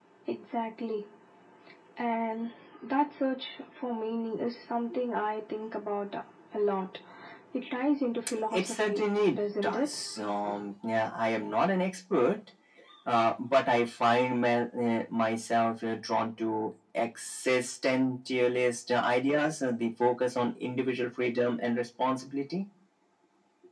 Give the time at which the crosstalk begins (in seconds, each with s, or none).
8.5 s